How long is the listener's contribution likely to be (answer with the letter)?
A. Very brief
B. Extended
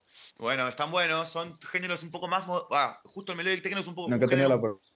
B